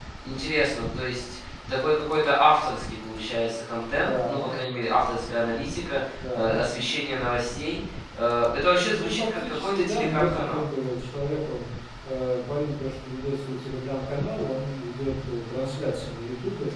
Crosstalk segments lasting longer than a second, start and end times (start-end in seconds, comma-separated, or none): 8.9-10.6